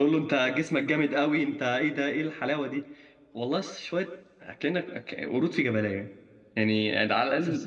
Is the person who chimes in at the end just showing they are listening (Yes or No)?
Yes